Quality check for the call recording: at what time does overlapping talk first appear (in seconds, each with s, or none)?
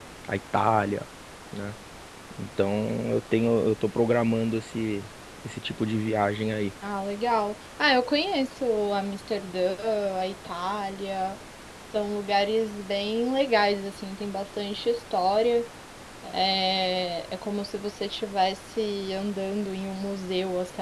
none